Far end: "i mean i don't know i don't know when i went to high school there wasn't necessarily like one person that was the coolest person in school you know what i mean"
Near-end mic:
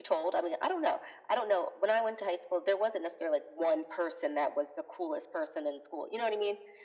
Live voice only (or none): none